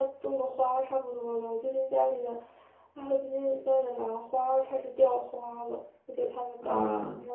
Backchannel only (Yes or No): Yes